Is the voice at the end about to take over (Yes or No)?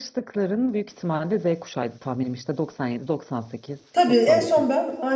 Yes